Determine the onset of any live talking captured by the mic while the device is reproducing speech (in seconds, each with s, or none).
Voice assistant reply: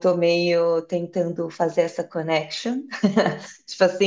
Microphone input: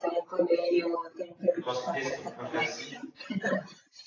1.5 s